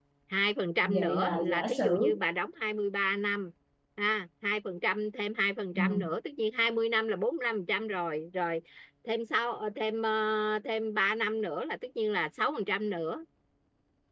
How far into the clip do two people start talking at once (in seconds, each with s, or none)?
0.8 s